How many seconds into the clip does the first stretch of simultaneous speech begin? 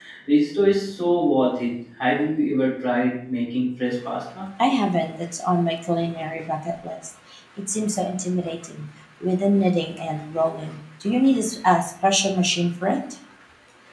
none

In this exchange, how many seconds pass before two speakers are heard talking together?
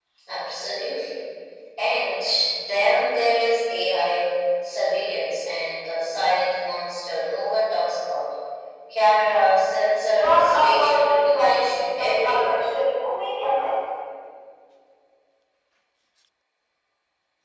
10.2 s

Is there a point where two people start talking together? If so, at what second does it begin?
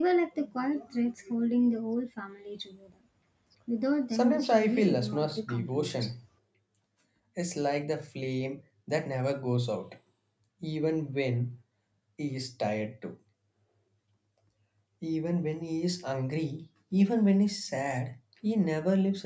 4.1 s

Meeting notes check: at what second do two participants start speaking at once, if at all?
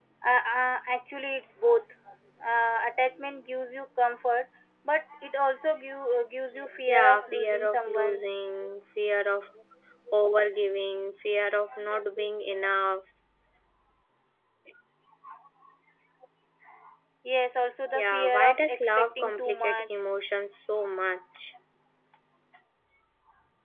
6.9 s

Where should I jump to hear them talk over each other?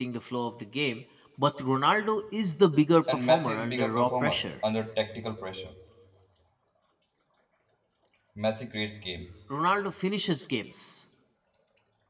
3.1 s

